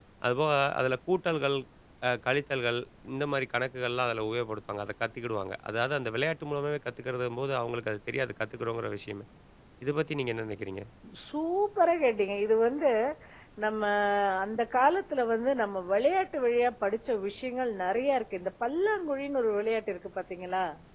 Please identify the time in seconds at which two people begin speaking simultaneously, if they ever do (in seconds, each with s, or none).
none